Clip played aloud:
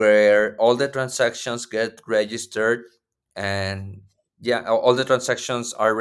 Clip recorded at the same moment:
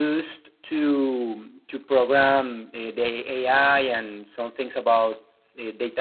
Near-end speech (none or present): present